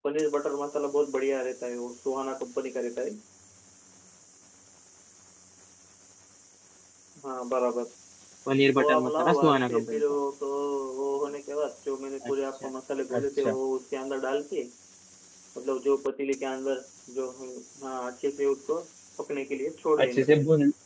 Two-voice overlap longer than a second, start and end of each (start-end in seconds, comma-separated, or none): 8.8-10.0